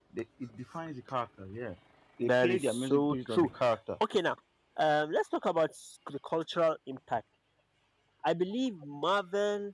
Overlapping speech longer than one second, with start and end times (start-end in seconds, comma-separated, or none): 2.2-3.5